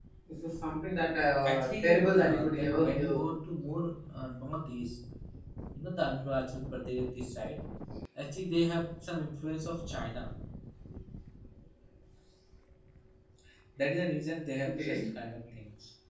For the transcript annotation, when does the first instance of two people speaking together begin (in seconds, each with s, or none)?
1.4 s